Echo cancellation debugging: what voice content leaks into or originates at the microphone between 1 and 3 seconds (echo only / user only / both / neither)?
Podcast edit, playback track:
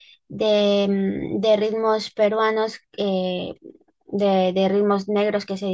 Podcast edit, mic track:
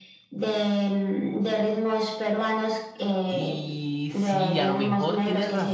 echo only